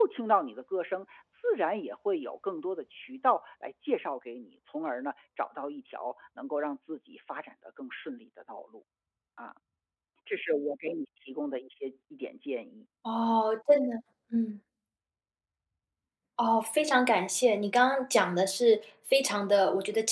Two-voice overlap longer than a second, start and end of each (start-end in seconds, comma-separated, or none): none